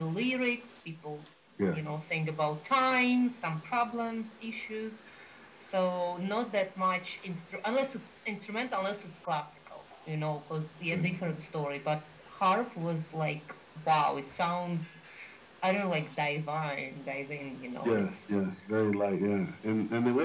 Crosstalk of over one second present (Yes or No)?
No